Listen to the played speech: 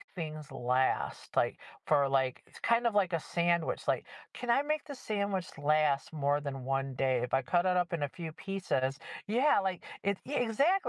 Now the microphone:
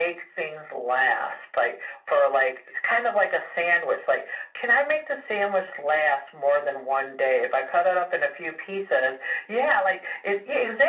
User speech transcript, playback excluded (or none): none